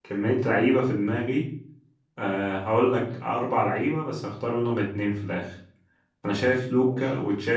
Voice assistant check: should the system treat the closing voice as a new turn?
No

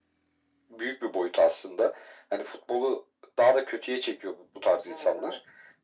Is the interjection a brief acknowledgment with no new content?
Yes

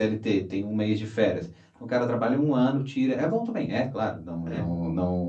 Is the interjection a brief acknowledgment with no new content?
Yes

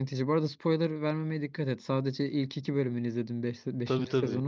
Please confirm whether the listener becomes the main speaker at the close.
Yes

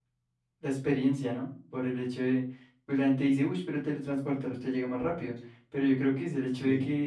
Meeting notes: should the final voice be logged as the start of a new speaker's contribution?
No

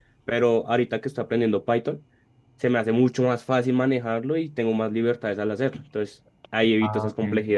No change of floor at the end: No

